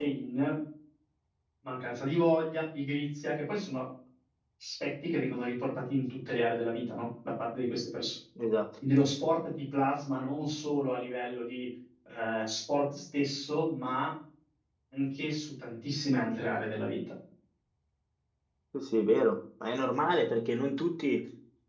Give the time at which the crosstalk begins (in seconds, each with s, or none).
none